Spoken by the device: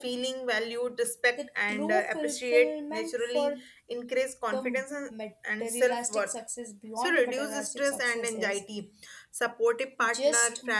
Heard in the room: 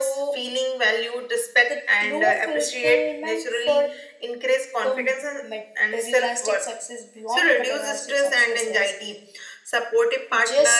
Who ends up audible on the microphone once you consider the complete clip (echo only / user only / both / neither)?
echo only